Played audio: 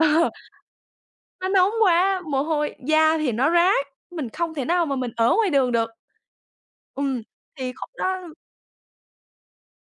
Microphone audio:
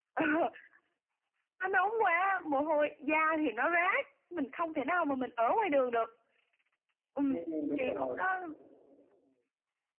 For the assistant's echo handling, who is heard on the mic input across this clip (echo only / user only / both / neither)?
both